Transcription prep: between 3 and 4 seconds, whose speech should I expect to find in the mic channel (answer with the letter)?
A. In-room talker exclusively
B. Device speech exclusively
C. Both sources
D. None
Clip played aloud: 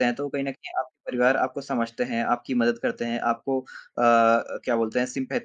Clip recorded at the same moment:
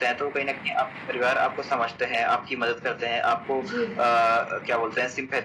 C